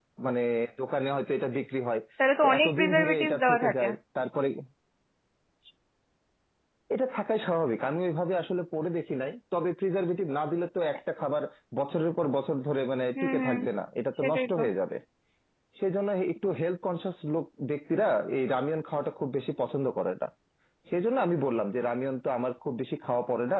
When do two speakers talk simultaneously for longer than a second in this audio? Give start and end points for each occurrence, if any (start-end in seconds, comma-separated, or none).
2.4-3.8